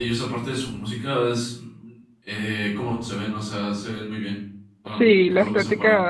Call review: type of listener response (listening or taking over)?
taking over